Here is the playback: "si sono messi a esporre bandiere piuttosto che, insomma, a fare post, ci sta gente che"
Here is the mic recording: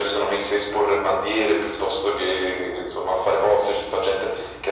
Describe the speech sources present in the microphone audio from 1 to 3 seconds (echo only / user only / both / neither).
echo only